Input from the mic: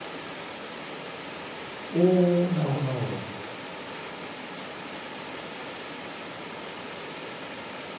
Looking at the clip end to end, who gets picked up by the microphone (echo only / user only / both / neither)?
user only